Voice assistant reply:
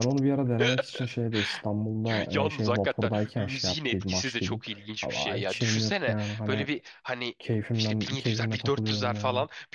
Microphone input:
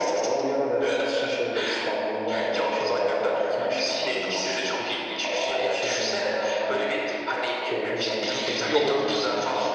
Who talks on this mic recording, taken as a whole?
both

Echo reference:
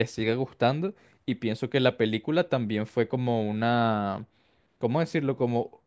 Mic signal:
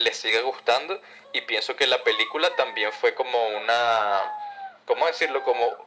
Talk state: echo only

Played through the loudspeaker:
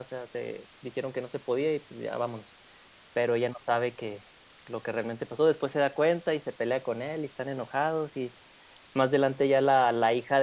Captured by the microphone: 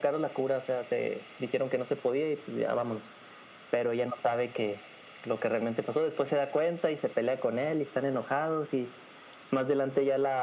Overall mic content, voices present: echo only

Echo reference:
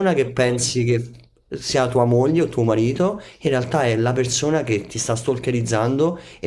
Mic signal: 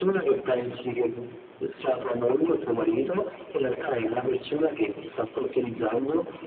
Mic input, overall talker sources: echo only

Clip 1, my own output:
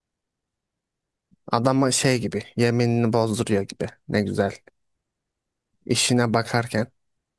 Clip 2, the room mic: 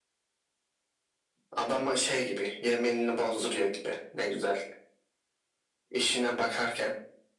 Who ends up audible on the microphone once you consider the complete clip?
echo only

